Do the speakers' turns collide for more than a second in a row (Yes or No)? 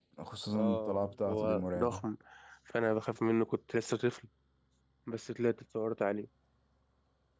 Yes